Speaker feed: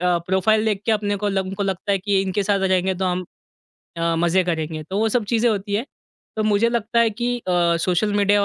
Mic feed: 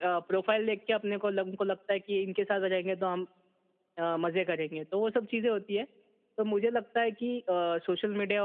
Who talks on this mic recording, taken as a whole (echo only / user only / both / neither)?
echo only